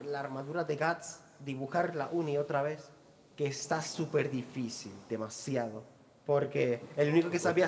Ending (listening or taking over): listening